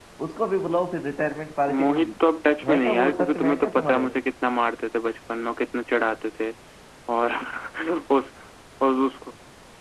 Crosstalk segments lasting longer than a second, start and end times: 2.7-4.0

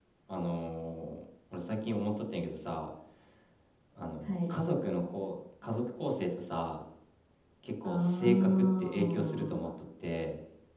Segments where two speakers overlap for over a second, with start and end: 7.8-9.6

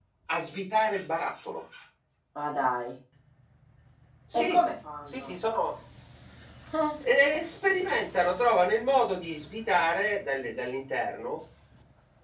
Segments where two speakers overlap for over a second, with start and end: none

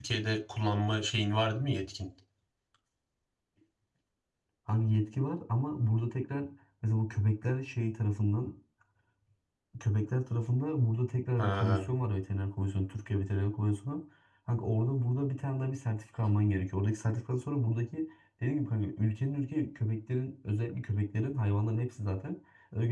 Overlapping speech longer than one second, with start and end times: none

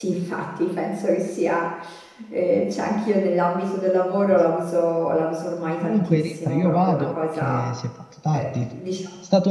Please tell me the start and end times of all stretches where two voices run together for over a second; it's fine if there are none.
5.8-7.6

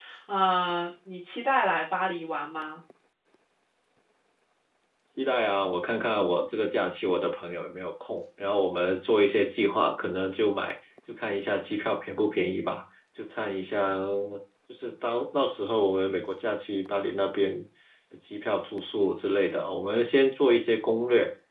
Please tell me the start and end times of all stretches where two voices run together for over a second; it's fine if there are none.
none

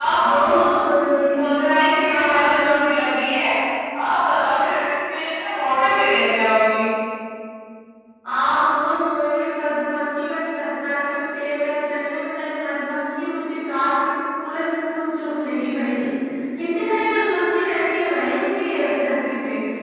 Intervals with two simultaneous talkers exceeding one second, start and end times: none

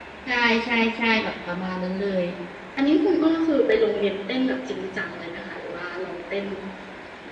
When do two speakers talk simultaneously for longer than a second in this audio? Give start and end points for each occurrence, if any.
none

